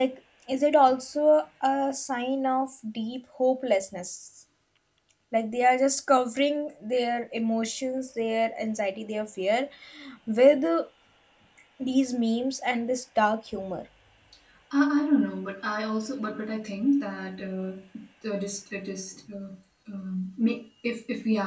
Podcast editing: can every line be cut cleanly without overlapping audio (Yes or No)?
Yes